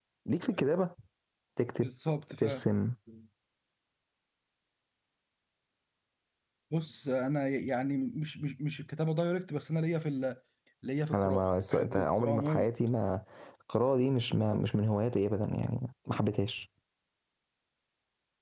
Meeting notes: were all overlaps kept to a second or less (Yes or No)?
No